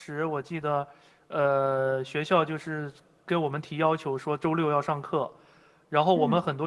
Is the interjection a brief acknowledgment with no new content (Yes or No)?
Yes